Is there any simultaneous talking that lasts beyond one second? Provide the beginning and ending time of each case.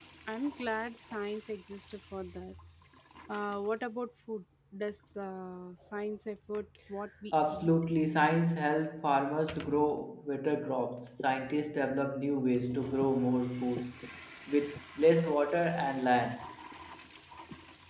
none

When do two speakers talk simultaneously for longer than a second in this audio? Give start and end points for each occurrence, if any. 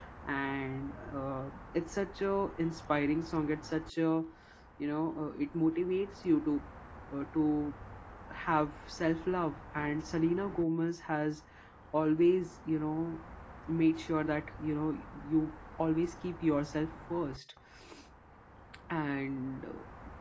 none

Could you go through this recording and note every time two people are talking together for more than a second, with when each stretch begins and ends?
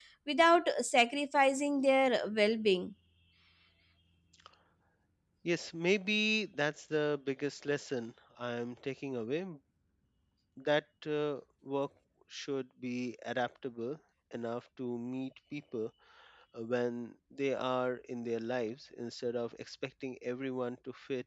none

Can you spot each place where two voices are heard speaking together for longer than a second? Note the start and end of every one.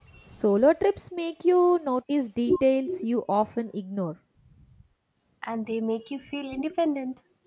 none

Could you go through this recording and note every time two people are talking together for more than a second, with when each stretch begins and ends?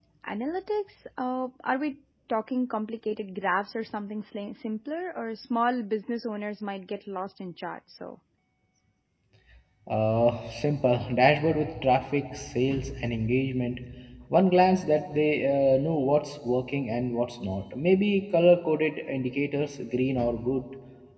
none

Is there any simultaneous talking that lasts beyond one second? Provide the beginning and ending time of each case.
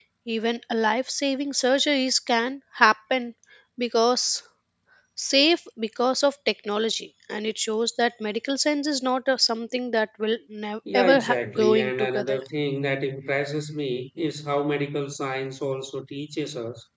10.9-12.4

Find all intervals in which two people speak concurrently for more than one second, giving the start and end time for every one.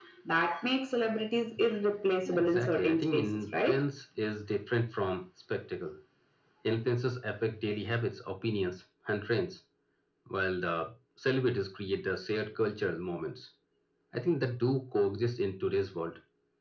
2.3-3.8

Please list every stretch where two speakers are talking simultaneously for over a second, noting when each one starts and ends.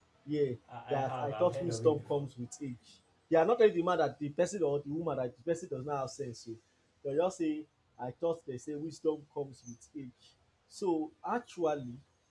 0.9-2.3

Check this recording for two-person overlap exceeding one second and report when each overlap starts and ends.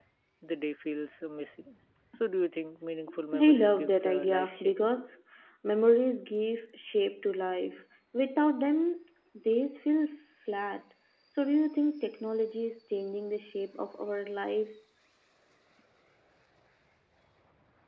3.4-4.7

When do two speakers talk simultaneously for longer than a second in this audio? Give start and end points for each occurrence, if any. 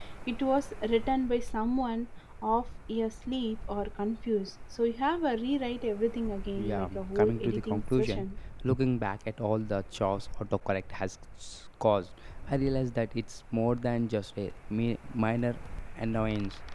6.6-8.2

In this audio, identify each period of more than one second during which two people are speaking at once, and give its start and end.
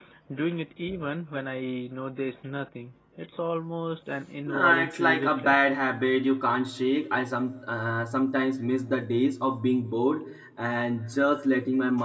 4.5-5.8

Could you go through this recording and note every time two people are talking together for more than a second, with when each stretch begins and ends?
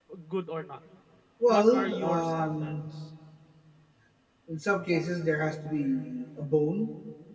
1.5-2.8

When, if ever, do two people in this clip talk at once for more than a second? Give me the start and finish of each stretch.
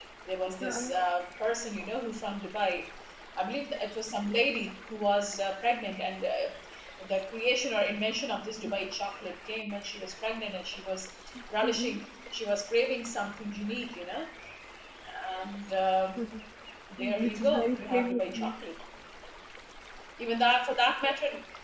17.0-18.5

